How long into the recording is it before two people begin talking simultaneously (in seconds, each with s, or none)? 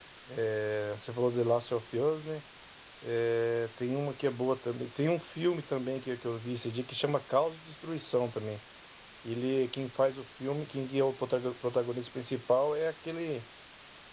none